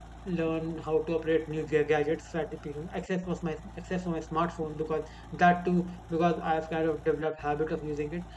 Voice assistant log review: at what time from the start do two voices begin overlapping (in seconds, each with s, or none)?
none